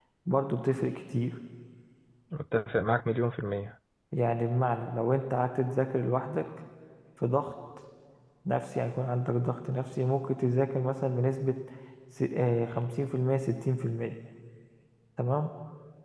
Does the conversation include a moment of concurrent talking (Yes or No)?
No